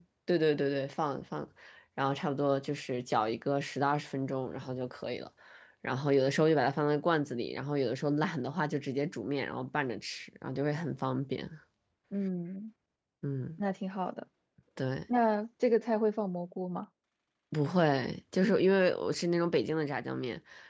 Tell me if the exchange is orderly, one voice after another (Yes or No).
Yes